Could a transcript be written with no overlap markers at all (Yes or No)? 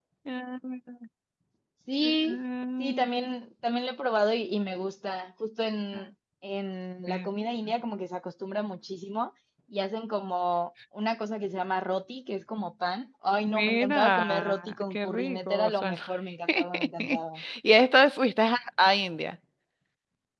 No